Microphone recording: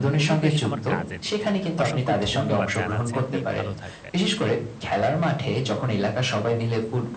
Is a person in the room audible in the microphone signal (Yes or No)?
Yes